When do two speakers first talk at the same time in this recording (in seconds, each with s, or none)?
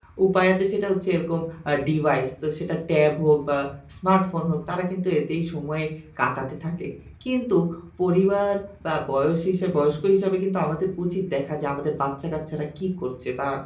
none